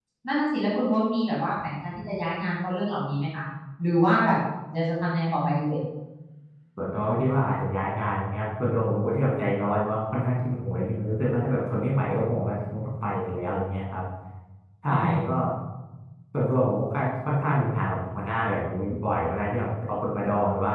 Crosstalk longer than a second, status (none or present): none